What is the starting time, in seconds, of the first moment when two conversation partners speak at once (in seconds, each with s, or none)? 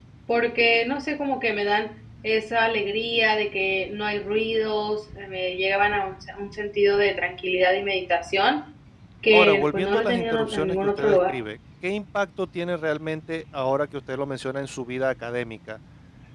9.3 s